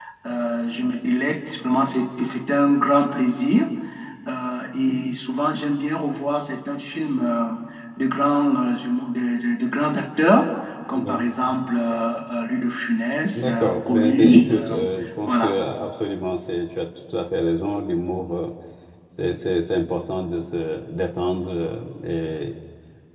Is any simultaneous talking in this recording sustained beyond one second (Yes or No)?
Yes